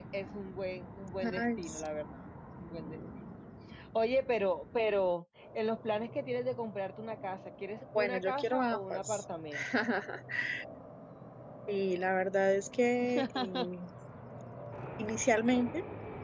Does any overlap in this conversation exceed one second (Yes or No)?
Yes